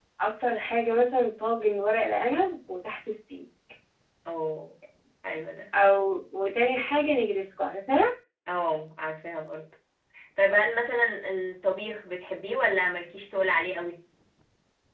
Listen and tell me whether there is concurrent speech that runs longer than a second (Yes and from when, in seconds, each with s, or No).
No